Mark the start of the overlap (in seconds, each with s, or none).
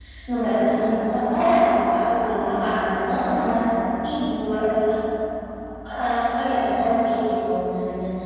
2.0 s